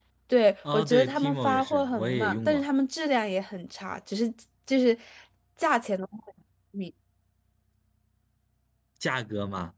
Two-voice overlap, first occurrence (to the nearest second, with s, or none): 1 s